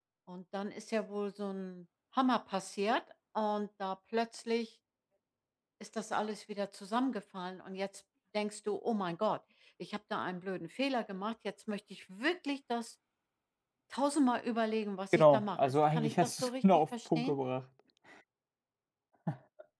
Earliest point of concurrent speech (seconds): 15.1 s

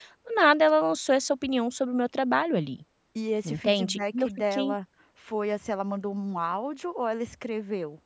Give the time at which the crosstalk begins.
3.4 s

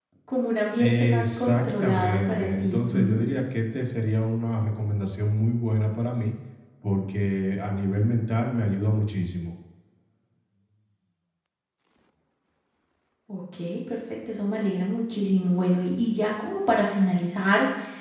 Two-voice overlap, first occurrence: 0.8 s

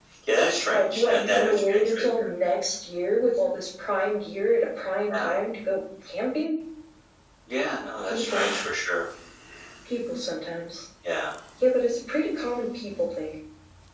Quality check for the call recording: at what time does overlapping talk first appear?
0.7 s

